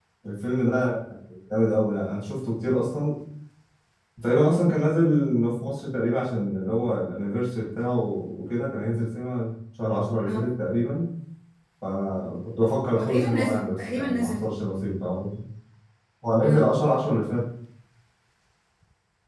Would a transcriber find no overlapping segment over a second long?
No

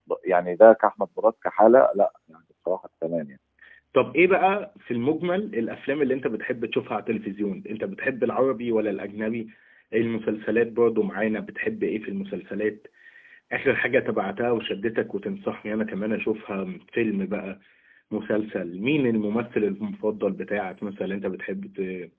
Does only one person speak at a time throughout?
Yes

